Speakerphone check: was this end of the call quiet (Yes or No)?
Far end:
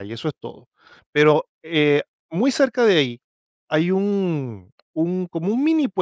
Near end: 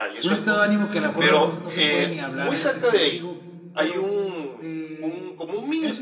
No